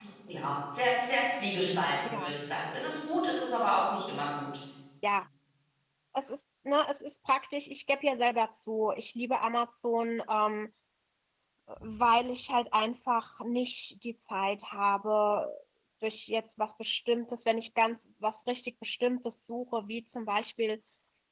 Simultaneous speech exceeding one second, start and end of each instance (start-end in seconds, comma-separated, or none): none